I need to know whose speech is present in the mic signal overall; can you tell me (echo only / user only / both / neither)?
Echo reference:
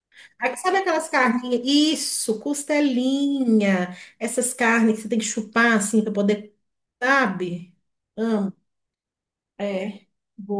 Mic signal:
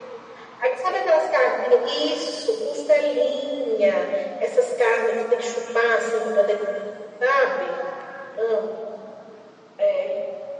echo only